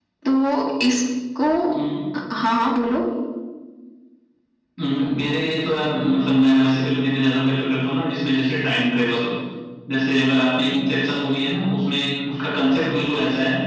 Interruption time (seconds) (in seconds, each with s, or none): none